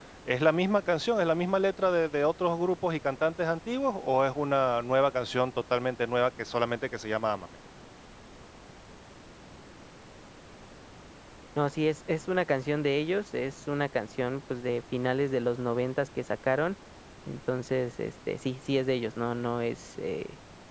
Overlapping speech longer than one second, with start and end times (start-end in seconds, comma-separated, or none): none